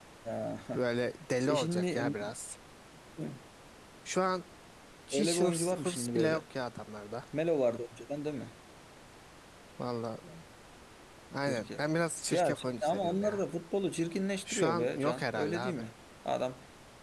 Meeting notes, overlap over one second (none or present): present